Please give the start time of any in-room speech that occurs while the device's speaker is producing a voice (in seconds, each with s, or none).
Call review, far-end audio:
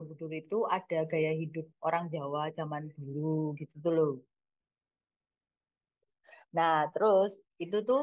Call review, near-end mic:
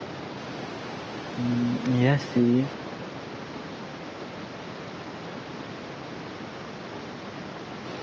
1.4 s